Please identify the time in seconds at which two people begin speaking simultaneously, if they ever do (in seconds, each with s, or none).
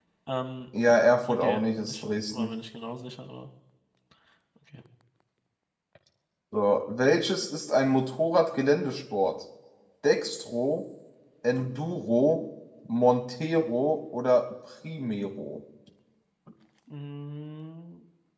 1.2 s